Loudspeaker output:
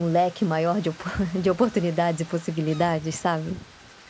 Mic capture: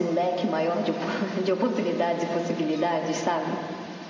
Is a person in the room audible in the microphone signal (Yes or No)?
No